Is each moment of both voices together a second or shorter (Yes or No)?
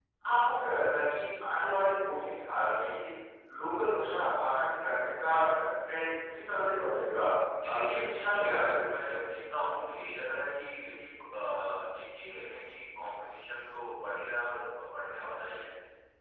No